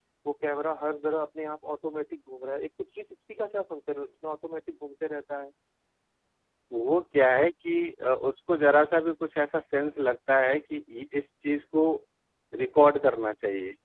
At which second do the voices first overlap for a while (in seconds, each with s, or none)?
none